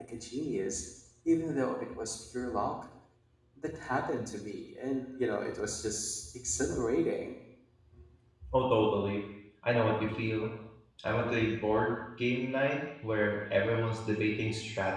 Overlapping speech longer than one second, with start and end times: none

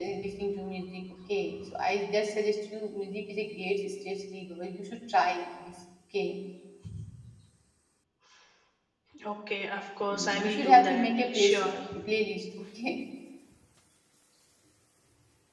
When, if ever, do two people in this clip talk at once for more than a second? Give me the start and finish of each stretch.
10.4-11.8

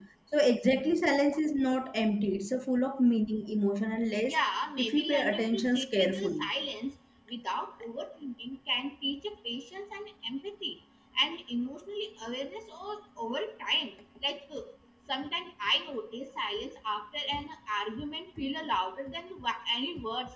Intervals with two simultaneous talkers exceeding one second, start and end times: 4.8-6.5

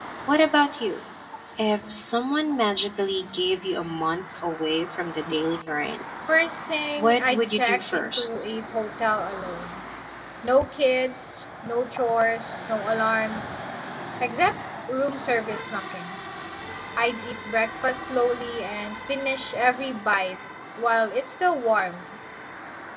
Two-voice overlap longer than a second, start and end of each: 7.0-8.3

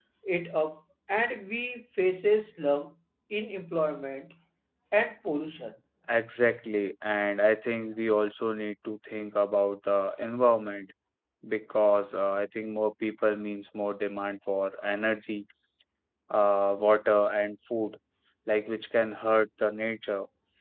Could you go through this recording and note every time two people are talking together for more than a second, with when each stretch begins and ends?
none

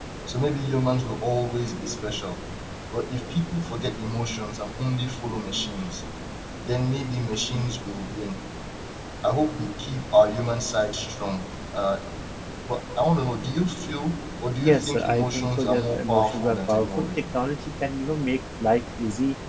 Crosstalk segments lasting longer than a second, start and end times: 14.6-17.2

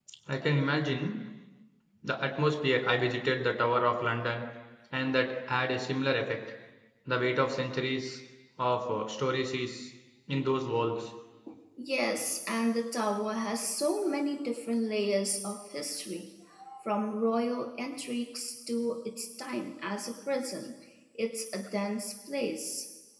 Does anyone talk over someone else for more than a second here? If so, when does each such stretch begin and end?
none

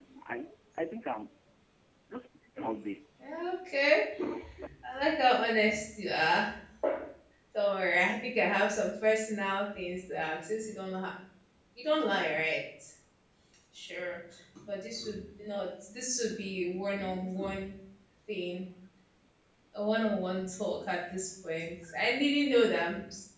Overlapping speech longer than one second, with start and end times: none

